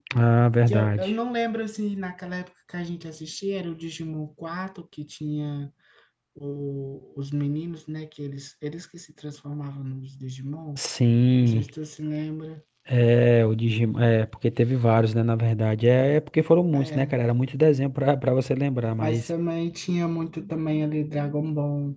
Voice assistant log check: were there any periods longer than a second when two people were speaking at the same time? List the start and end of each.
none

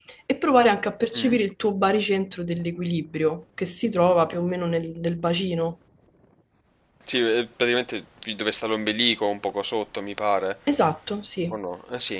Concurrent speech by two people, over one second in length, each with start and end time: none

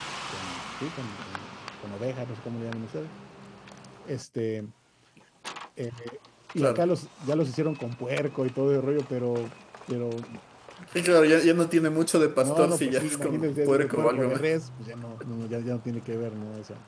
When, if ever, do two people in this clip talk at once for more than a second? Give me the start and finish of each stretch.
12.4-14.4

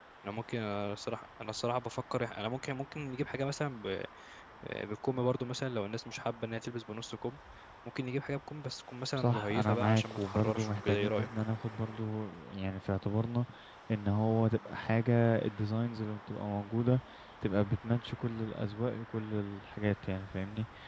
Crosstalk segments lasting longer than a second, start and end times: 9.2-11.3

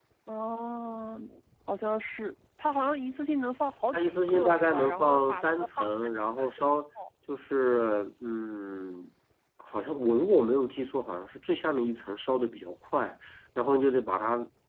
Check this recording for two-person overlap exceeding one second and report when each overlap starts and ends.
3.9-5.9

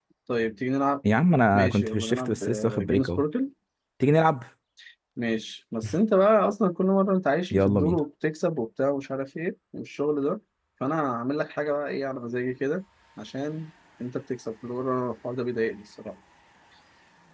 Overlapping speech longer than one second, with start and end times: 1.5-3.2

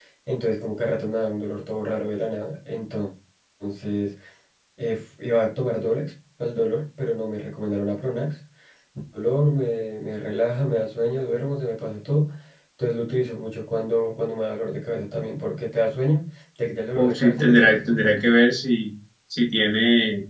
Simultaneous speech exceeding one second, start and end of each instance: 16.9-18.2

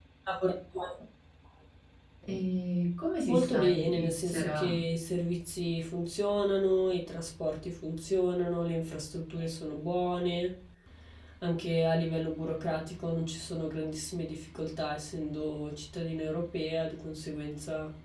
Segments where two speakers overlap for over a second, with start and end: 3.3-4.8

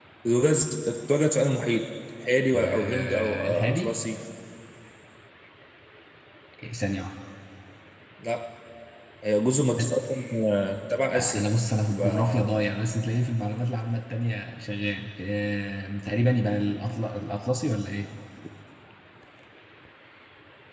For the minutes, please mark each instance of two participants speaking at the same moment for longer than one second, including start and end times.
2.5-3.9

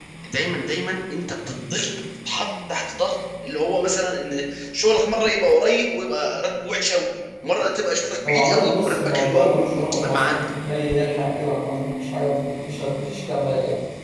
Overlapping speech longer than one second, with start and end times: 8.3-9.5

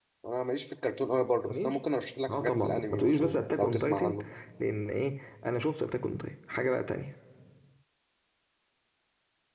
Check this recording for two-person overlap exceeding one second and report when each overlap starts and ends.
2.3-4.2

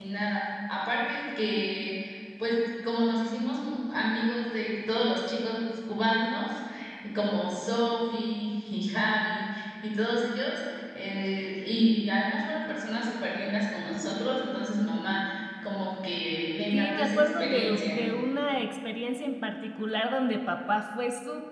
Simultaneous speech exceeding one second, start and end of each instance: 16.7-18.0

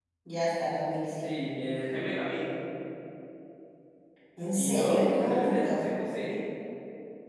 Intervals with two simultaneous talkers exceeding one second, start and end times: 4.5-5.9

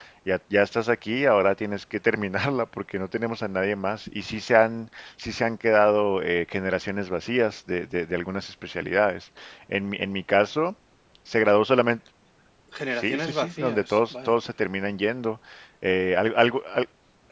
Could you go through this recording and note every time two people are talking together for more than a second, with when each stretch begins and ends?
12.9-14.3

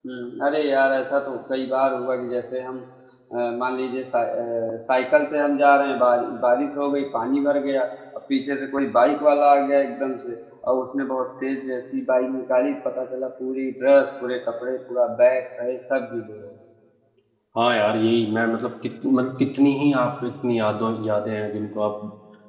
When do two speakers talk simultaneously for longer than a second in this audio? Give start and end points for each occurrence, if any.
none

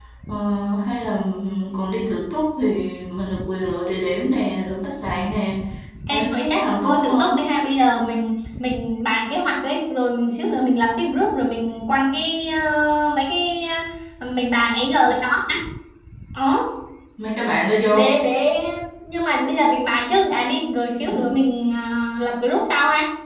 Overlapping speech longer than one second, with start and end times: 6.1-7.5

